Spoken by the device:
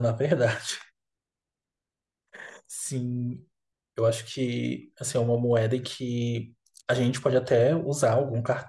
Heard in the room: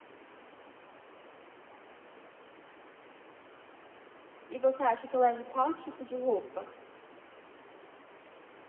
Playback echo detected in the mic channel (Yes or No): No